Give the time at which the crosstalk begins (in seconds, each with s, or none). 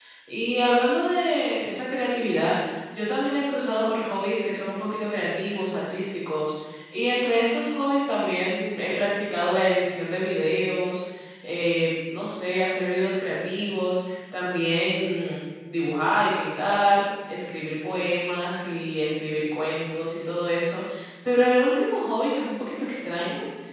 none